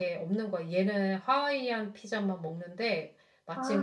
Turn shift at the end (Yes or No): No